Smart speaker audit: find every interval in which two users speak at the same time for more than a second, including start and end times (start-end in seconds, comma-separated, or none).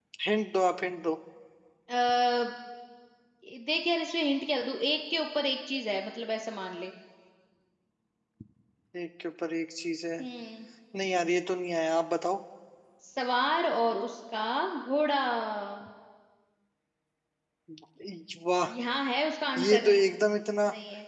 none